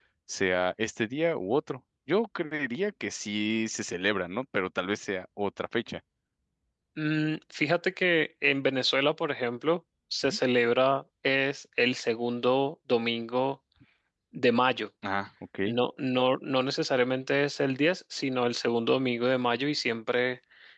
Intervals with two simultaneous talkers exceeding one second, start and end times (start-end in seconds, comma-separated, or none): none